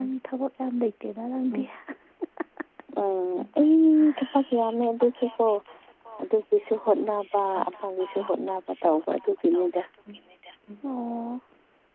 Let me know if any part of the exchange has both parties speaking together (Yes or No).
No